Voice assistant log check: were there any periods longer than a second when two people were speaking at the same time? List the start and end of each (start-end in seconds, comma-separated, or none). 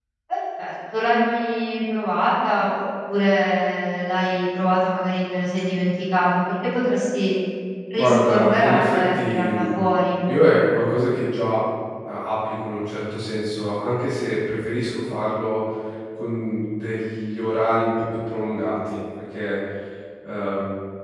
8.0-9.6